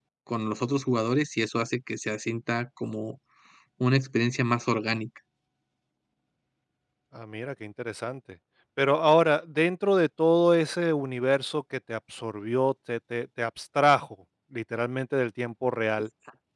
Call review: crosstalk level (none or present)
none